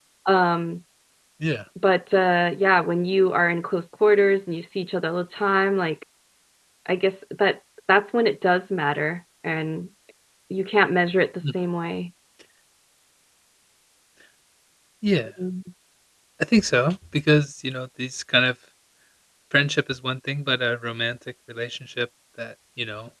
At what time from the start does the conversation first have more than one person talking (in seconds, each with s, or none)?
none